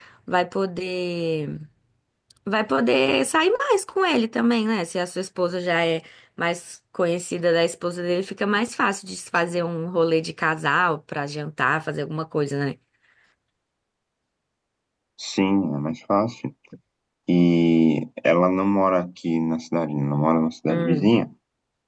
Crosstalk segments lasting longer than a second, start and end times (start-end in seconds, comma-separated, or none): none